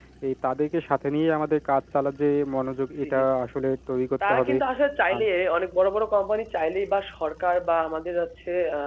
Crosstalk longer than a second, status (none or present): none